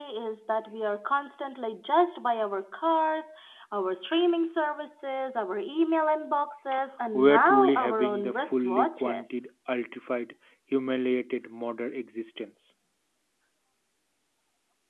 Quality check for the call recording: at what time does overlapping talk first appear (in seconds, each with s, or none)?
7.1 s